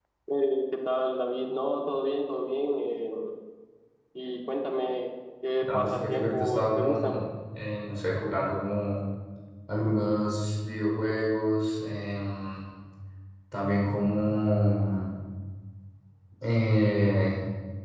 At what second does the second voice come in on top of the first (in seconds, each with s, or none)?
5.6 s